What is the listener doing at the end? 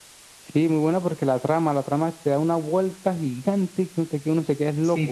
taking over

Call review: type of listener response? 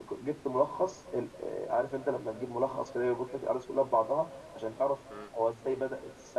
listening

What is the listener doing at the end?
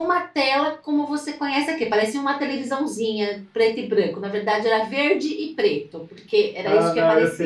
taking over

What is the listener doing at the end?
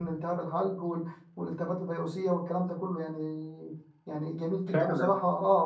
listening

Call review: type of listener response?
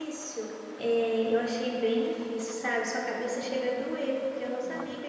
listening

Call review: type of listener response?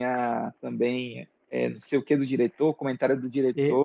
taking over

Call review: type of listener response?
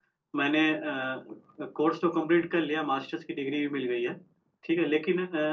listening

